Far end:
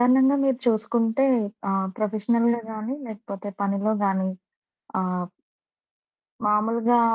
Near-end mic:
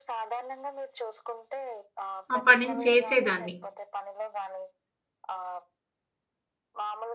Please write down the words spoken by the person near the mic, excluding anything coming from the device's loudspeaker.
ఆ పనిని చేసేదాన్ని.

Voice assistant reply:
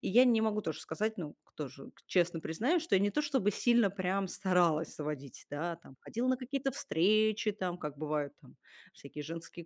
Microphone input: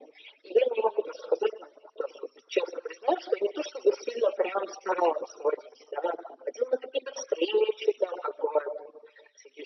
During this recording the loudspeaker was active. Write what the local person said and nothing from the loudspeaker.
none

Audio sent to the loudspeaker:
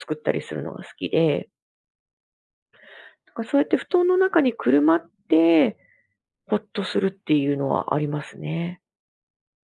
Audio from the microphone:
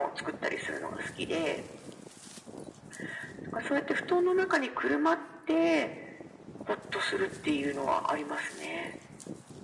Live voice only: none

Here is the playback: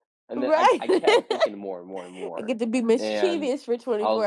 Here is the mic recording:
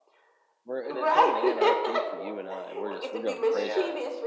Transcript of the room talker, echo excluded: we're a total anarchy for you and I. We're just we're going crazy.

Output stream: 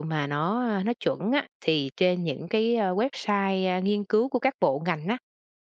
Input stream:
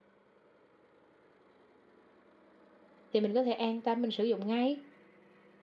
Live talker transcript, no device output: thì mình có thể an tâm mình sử dụng ngay.

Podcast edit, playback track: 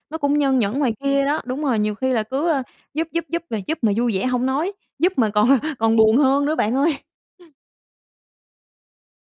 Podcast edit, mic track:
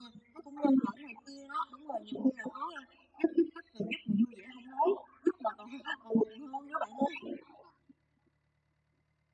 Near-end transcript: none

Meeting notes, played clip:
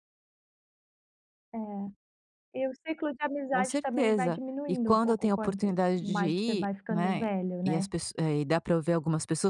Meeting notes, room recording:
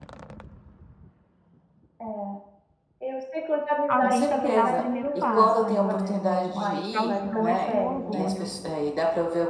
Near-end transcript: Alguém tem que dar o primeiro passo, ali, né, não pode ficar os 2 com orgulho.

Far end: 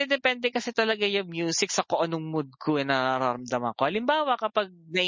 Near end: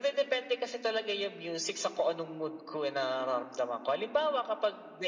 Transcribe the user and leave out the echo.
none

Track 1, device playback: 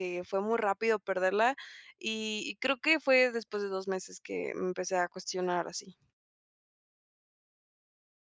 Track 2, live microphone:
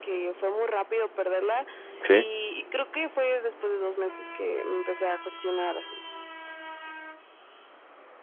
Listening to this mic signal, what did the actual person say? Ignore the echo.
Sí.

